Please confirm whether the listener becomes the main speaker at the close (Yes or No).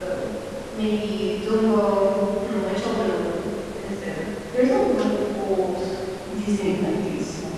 Yes